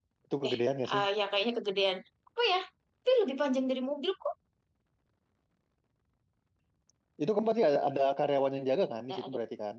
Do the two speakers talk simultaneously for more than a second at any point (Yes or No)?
No